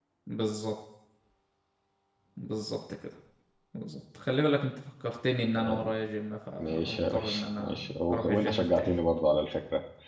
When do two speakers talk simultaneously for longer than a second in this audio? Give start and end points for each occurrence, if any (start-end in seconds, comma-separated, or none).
6.6-8.9